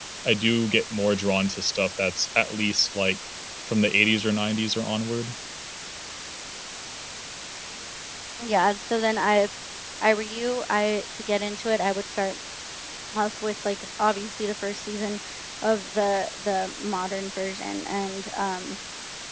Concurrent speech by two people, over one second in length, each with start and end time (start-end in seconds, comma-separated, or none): none